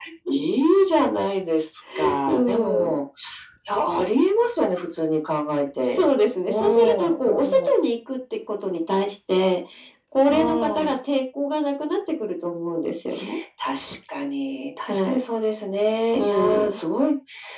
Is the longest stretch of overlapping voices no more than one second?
No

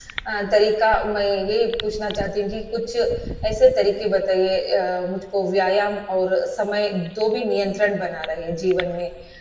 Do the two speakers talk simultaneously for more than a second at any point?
No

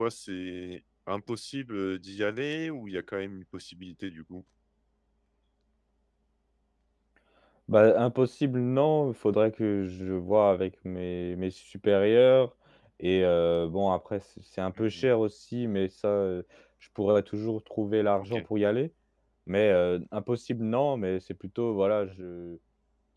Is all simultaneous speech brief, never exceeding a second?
Yes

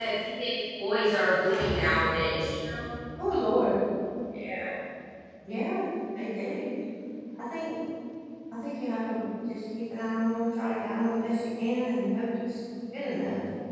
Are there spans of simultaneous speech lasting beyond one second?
No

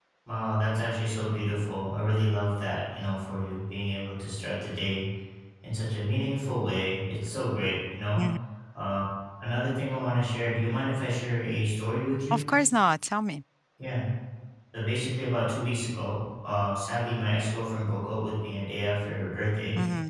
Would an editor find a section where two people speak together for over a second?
No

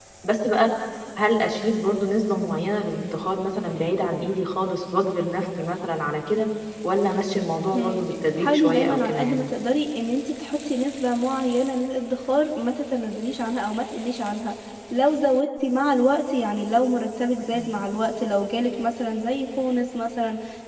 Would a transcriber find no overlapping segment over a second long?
No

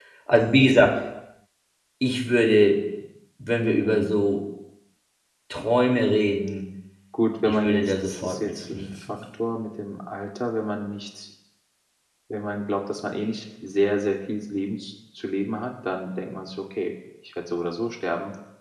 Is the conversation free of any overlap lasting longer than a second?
No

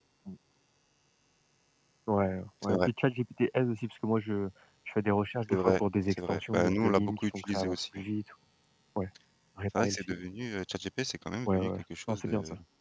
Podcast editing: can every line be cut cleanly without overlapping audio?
No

